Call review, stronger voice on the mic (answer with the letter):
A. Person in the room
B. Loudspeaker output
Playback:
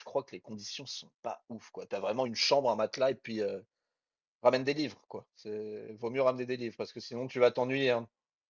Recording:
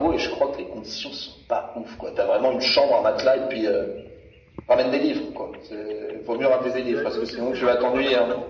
B